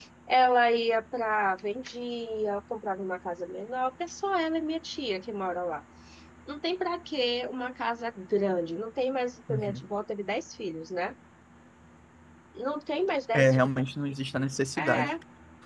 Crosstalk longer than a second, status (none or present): none